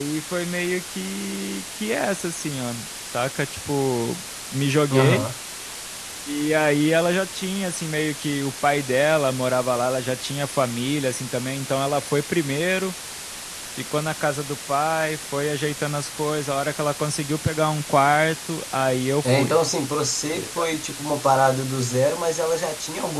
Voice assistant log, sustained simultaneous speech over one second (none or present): none